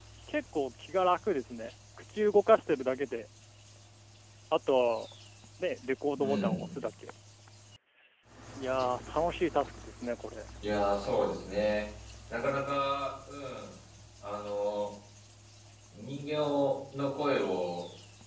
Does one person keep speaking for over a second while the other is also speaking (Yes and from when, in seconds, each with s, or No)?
No